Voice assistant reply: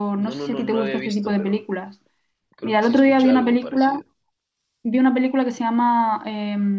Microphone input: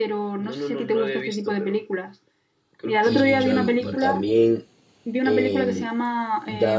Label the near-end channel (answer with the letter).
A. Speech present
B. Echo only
A